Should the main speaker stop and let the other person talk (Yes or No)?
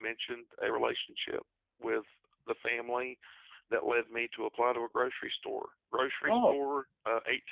No